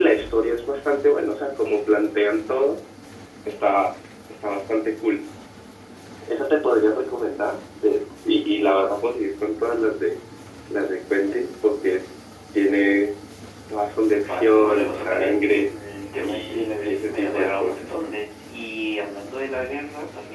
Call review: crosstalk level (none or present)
present